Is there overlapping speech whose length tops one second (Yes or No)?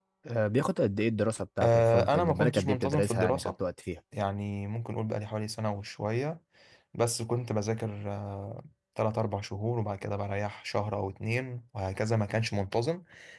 Yes